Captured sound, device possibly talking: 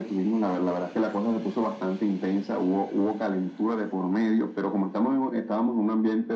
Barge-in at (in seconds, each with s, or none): none